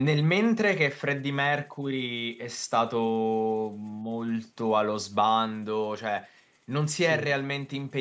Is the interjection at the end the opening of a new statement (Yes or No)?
No